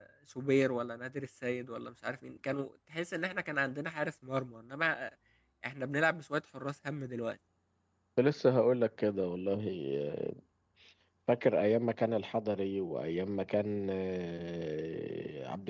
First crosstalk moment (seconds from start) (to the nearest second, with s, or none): none